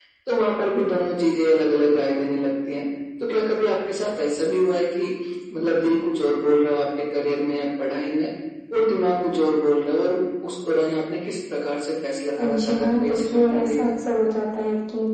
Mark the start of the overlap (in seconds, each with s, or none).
12.4 s